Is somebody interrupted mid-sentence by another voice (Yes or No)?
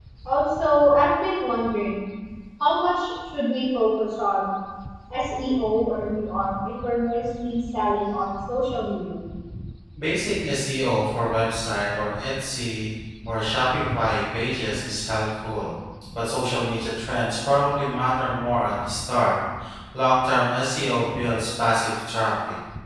No